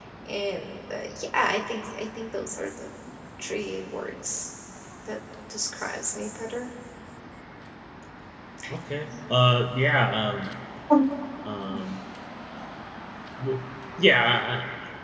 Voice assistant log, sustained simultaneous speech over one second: none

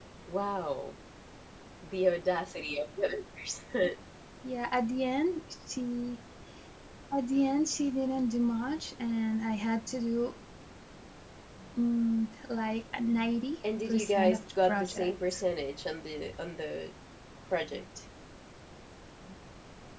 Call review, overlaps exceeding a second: present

